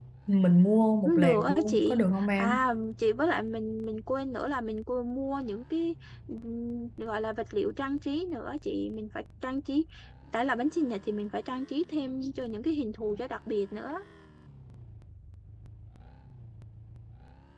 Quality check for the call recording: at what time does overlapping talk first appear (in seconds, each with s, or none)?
1.0 s